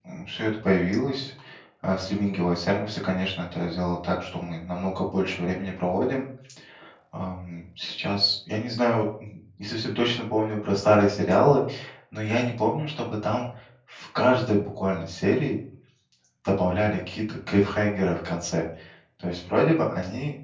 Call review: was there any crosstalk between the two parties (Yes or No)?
No